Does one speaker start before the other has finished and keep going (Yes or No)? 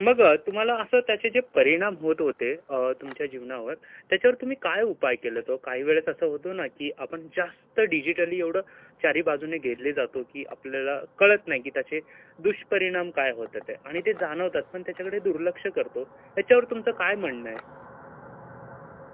No